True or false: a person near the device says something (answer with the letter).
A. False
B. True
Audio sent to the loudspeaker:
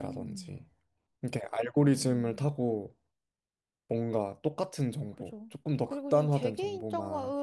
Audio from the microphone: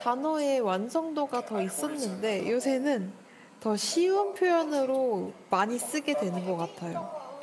B